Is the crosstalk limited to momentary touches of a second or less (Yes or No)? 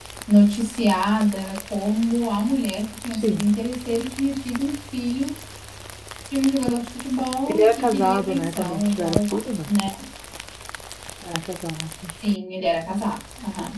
No